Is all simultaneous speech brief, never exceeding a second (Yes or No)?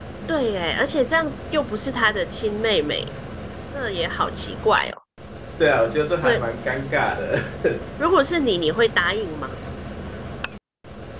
Yes